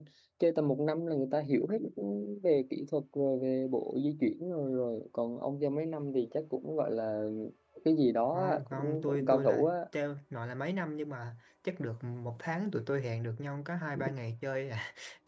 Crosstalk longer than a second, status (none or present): present